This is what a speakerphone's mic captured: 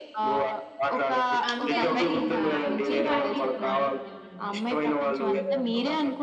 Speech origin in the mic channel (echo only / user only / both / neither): both